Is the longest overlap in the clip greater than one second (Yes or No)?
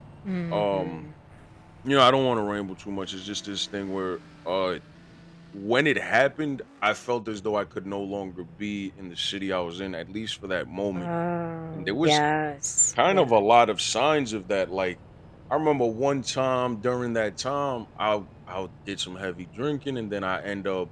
No